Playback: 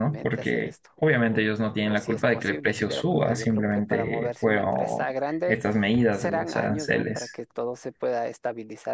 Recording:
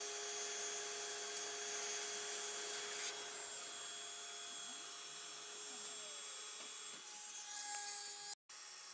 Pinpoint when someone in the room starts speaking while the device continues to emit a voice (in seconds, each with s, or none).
none